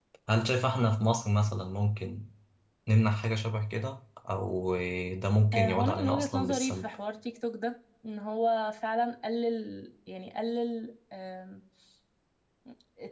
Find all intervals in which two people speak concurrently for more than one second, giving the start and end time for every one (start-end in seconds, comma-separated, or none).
5.5-6.9